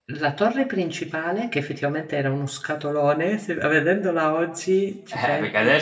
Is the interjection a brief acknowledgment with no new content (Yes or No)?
No